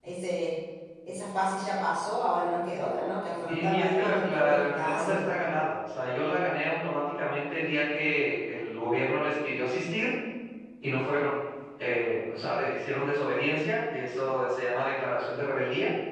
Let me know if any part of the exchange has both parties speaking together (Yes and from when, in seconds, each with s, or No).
Yes, from 3.5 s